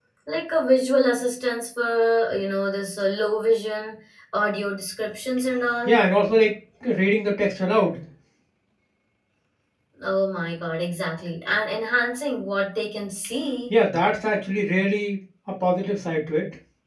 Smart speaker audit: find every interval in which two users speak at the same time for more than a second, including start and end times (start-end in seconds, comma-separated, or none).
none